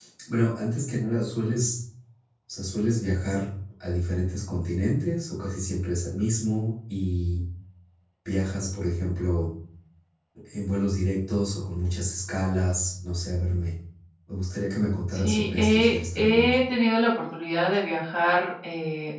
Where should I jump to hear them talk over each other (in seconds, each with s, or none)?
15.1 s